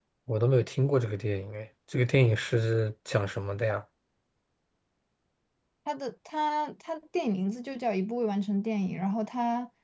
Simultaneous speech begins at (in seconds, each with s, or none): none